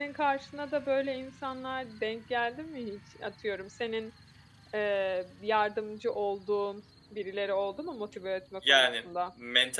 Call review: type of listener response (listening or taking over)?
taking over